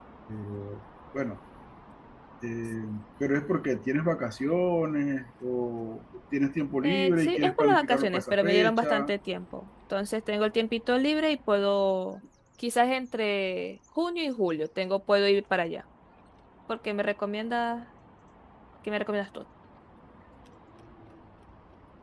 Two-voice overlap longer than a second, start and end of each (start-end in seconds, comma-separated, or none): 6.8-9.1